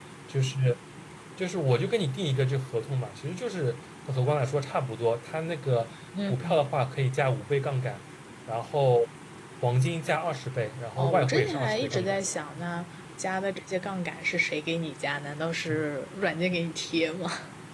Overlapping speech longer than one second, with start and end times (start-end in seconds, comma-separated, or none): 11.0-12.2